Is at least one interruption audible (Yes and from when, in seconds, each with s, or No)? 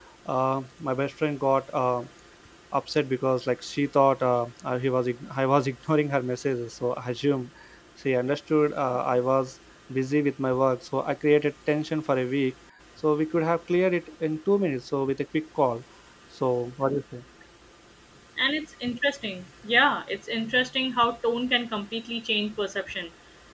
No